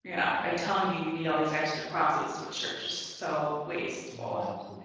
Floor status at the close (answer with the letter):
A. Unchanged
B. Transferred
B